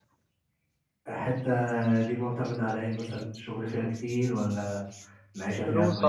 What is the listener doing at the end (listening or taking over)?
taking over